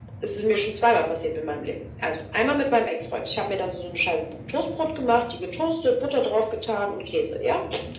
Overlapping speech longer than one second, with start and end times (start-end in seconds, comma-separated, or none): none